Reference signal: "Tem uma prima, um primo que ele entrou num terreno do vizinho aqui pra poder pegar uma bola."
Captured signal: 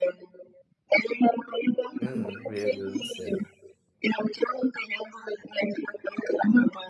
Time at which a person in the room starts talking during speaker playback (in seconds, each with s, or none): 2.0 s